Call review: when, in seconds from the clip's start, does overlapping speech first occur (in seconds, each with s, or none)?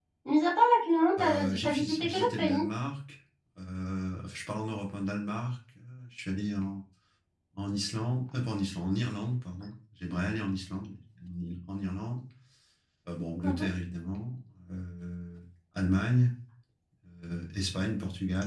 1.2 s